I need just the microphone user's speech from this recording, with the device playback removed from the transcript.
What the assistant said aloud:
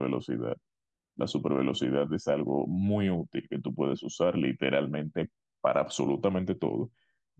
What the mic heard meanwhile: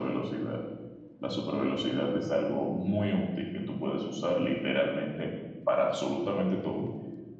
none

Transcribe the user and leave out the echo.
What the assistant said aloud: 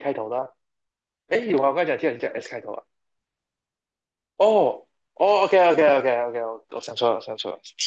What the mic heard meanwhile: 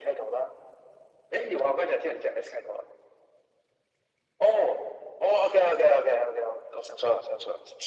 none

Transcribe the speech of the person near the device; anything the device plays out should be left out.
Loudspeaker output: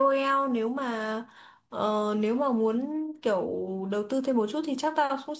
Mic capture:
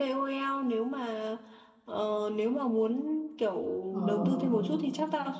ồ.

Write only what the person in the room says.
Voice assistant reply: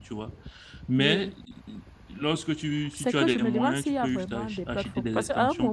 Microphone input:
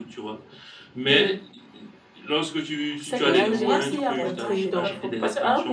React JS m'a montré. Donc,

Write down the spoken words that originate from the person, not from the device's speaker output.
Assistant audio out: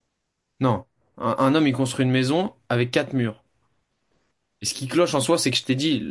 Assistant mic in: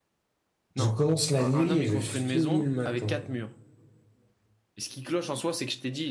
je commence la nuit et je finis le matin.

